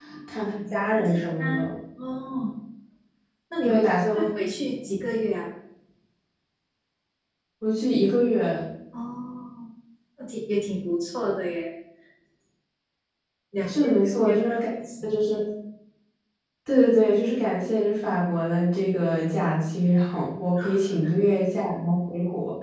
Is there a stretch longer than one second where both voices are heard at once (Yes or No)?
Yes